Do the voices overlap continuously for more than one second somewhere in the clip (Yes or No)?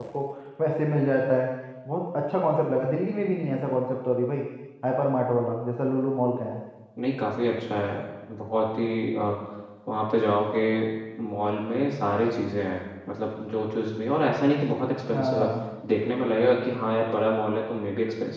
No